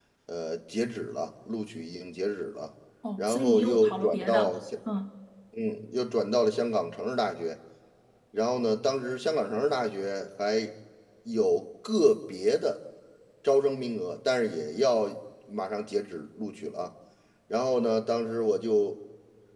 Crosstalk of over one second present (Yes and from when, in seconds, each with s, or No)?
Yes, from 3.0 s